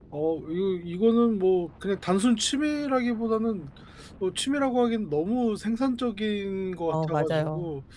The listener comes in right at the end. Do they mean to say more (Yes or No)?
Yes